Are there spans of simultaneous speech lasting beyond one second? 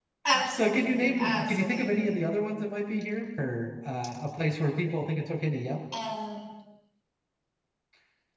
Yes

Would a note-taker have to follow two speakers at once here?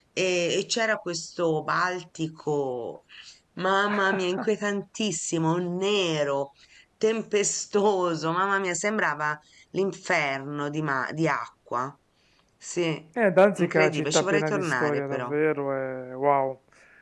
Yes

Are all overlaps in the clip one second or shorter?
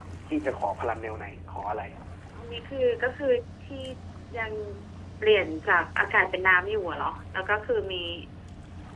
Yes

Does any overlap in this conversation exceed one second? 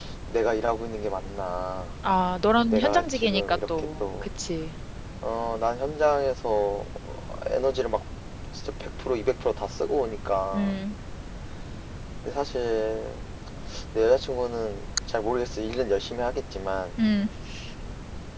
Yes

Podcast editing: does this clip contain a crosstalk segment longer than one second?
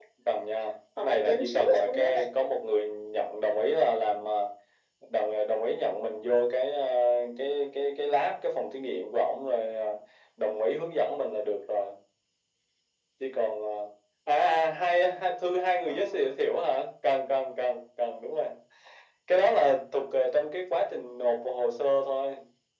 Yes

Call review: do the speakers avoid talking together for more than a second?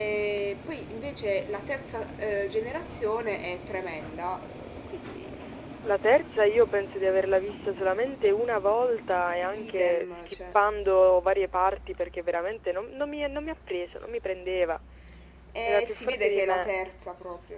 No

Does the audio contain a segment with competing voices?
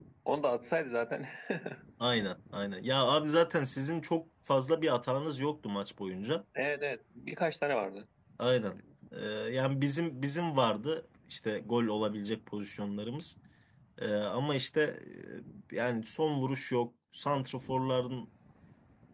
No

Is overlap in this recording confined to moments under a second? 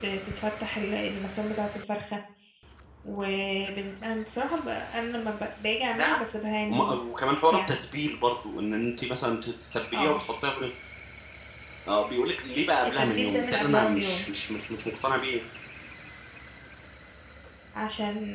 No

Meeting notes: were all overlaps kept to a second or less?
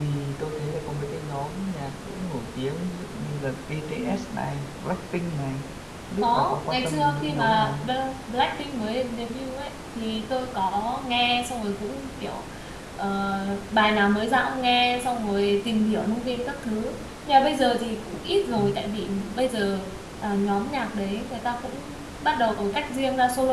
No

